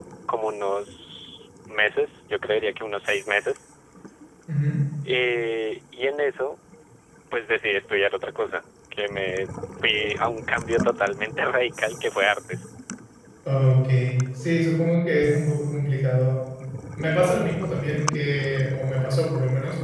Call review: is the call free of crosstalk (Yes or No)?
Yes